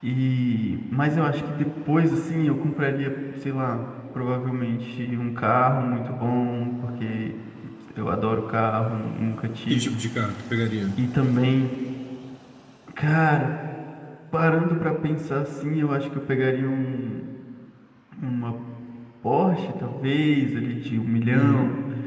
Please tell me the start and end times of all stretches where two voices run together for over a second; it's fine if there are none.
none

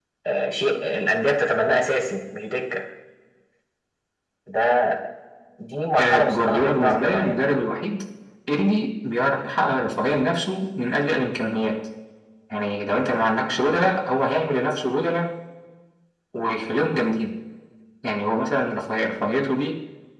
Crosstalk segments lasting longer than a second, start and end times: 6.0-7.5

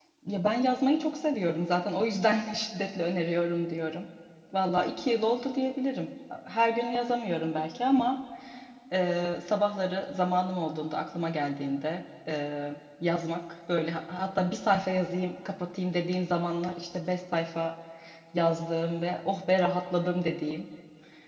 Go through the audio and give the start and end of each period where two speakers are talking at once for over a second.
none

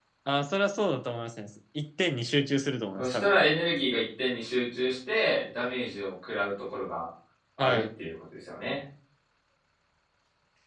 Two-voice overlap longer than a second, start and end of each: none

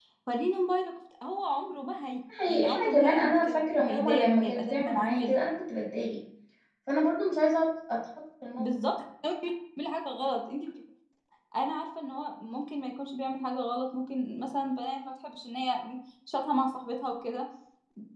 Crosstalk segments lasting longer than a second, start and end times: 2.5-5.4

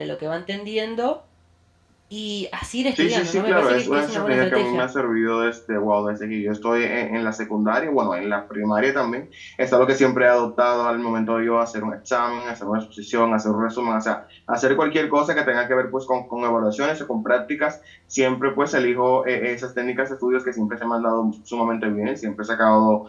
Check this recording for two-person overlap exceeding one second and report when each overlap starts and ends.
2.9-4.8

